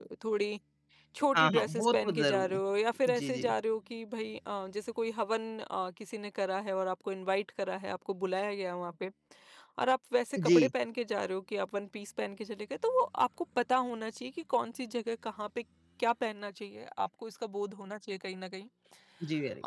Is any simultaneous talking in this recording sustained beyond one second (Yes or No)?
Yes